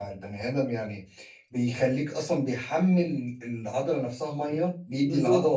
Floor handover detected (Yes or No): Yes